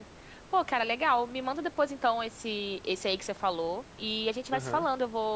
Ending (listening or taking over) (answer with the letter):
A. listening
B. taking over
A